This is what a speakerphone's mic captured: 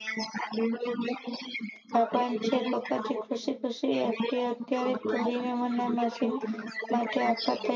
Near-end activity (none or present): present